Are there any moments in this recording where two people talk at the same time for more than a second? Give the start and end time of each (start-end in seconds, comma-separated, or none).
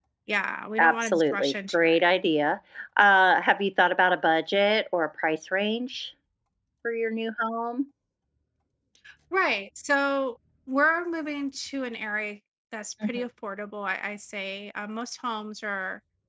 0.8-2.1